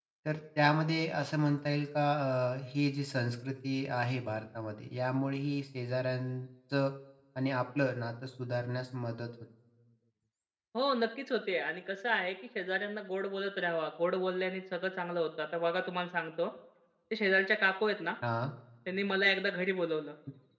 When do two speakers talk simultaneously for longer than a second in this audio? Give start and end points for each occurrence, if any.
none

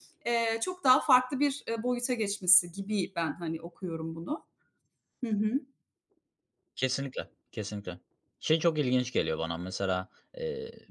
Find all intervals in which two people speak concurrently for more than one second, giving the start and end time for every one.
none

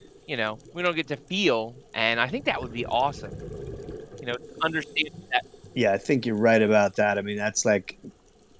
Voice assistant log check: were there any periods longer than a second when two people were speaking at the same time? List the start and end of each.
none

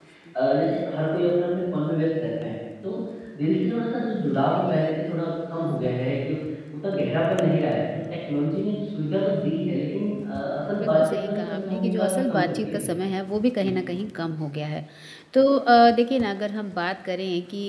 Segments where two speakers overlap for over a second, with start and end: 10.8-12.9

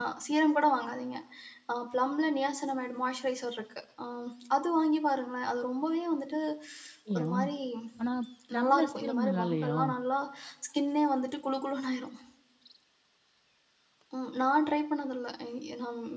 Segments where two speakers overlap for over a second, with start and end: 8.5-9.8

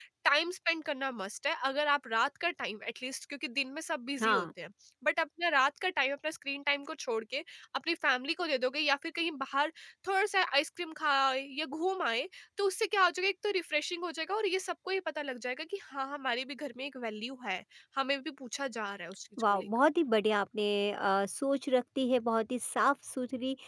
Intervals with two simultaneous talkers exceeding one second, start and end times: none

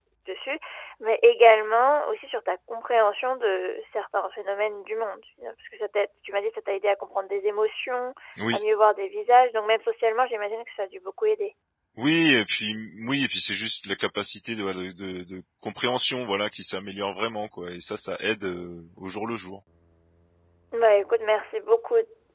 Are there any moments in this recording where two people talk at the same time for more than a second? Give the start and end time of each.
none

